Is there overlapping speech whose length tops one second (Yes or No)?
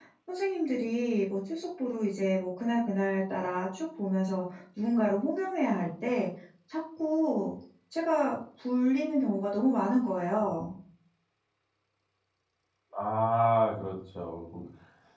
No